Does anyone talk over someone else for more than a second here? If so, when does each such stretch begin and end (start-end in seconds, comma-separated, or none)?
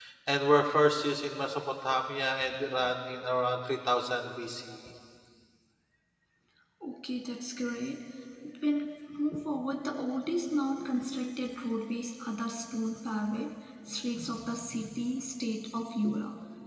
none